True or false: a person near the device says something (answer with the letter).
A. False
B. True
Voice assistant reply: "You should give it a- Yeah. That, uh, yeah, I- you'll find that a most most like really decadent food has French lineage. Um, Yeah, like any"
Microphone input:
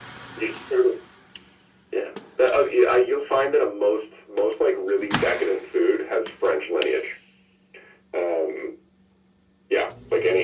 A